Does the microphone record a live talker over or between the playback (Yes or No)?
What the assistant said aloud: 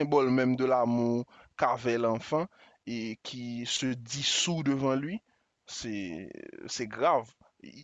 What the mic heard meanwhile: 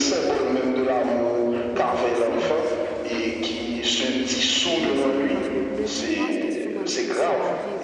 Yes